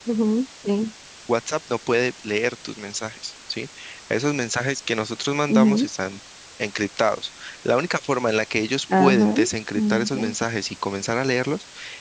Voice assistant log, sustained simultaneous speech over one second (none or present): none